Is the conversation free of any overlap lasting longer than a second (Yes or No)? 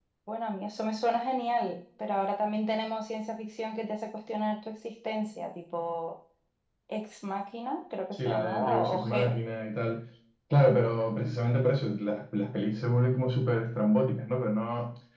No